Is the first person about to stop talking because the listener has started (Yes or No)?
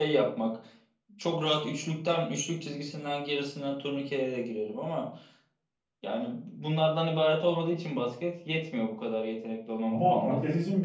Yes